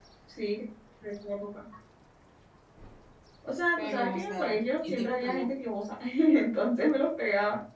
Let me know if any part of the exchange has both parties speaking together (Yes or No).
Yes